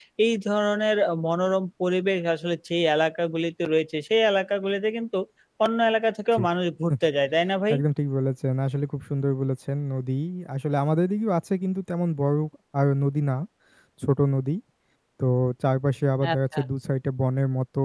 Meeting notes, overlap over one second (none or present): none